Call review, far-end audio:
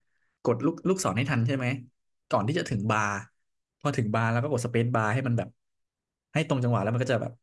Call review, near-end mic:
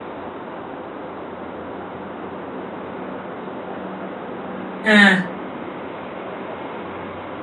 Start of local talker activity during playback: 4.8 s

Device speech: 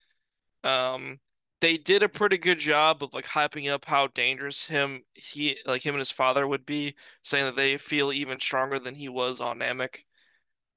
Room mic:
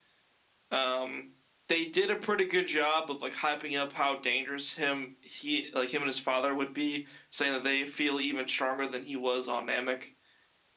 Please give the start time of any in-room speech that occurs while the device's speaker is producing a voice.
none

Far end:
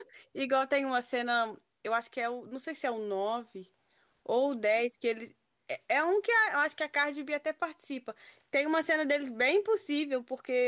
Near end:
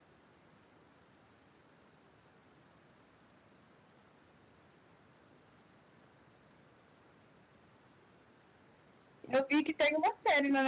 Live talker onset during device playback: 9.2 s

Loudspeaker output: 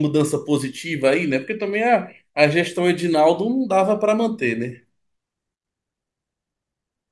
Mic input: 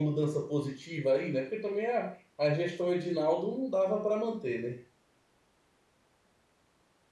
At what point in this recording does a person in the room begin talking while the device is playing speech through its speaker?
none

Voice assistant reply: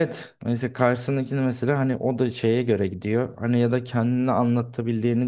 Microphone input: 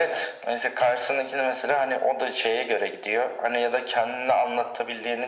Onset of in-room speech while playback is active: none

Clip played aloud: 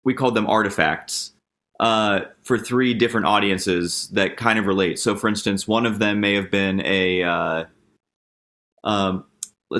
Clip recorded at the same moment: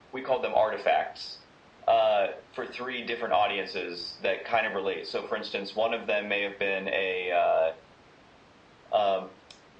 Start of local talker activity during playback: none

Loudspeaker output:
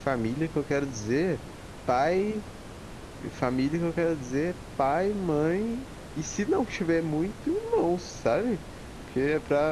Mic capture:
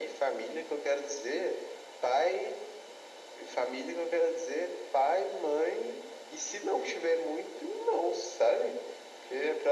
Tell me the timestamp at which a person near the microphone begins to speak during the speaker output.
none

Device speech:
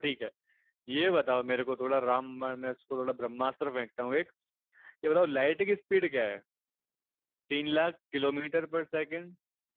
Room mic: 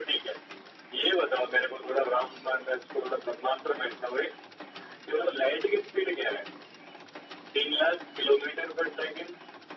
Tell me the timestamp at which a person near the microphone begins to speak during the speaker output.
none

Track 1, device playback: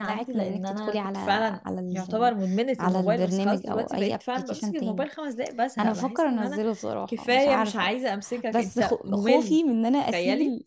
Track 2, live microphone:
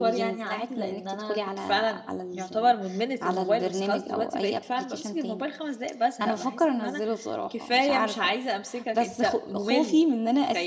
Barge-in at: none

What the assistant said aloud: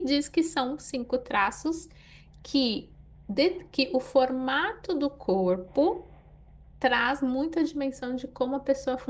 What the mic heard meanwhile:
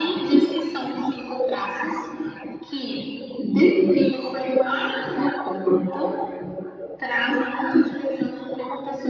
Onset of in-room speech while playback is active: none

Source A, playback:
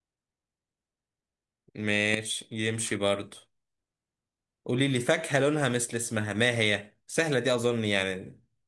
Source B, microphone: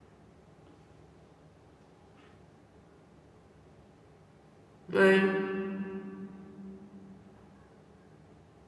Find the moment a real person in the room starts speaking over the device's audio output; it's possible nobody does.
4.9 s

